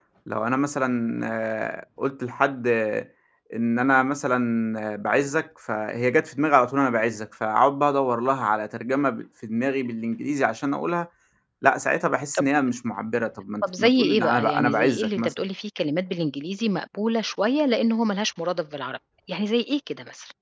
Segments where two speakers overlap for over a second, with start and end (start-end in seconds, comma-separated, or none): 13.8-15.4